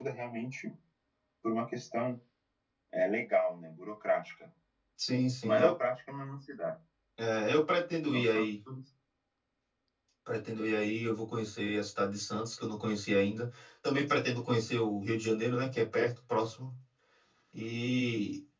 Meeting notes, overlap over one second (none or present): none